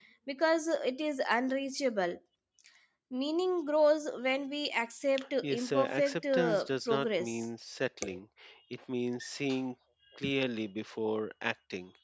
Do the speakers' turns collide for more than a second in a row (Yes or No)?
Yes